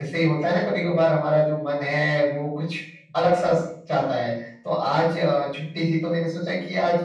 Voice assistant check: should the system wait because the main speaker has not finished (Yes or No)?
Yes